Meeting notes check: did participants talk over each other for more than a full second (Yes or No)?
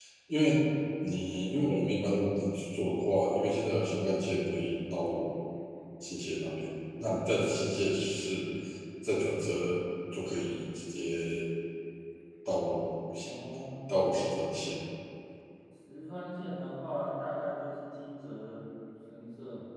No